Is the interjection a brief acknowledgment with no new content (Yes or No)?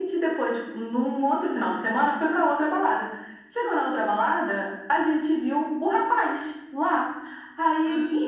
Yes